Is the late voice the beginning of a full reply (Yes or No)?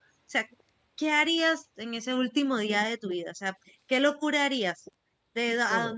No